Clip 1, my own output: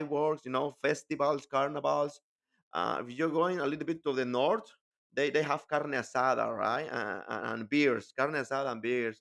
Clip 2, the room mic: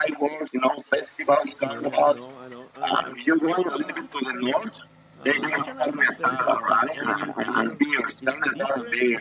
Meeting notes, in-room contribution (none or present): present